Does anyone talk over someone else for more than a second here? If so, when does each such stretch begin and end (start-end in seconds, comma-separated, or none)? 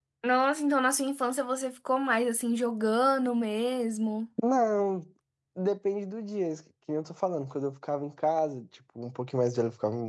none